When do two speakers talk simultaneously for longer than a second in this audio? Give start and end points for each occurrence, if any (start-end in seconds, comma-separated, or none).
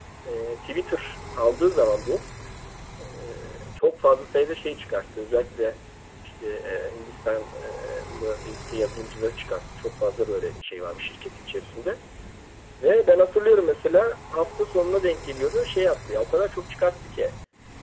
none